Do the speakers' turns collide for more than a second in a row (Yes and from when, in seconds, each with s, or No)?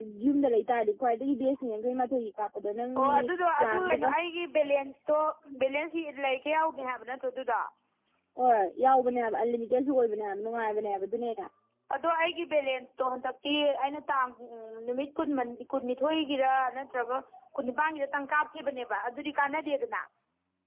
No